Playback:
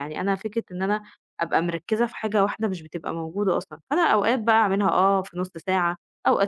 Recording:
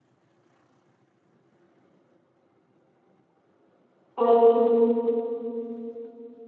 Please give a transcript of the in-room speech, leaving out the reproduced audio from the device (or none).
أيوه،